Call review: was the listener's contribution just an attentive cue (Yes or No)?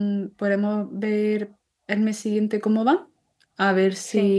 Yes